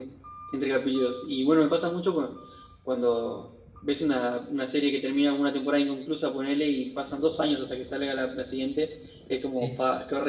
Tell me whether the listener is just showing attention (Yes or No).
Yes